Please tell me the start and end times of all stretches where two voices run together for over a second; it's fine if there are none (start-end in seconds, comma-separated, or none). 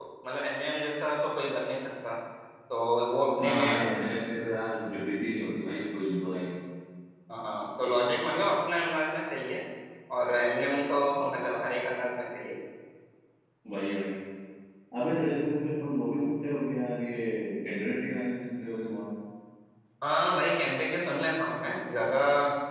none